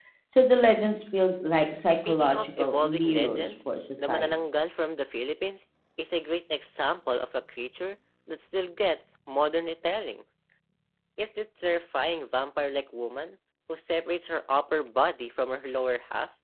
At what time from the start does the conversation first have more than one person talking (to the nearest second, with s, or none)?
2 s